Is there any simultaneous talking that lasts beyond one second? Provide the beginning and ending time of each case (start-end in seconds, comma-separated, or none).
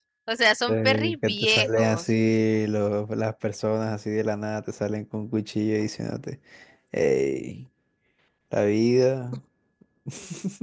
0.7-2.1